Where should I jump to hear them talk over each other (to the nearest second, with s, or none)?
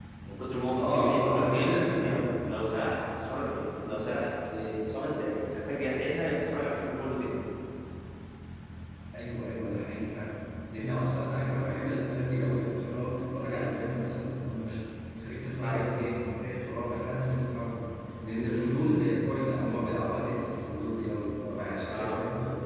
1 s